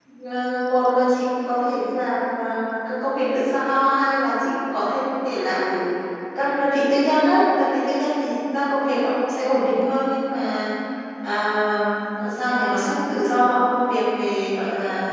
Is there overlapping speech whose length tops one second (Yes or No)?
No